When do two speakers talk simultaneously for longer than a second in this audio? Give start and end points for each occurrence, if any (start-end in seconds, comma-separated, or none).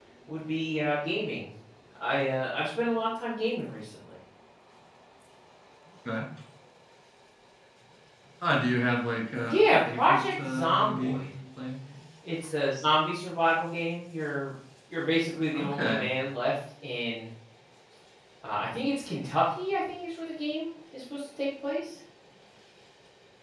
9.4-11.3